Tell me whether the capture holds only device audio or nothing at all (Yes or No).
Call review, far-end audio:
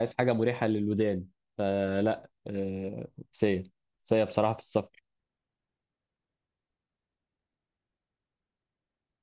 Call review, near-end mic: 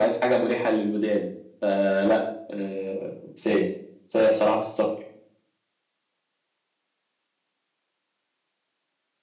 Yes